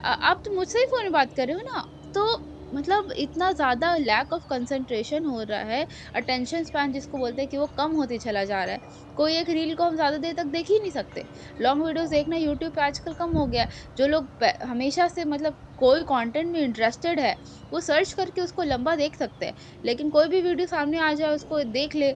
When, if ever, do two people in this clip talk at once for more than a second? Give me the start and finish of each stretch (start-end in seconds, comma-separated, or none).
none